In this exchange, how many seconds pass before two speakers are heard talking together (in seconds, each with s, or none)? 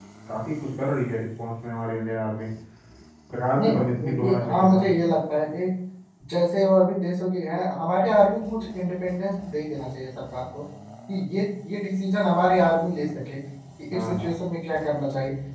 3.6 s